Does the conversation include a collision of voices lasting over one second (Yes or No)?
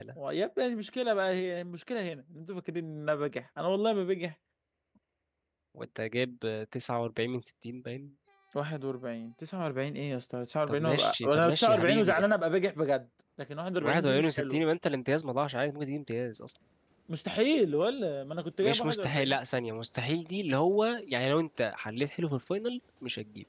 Yes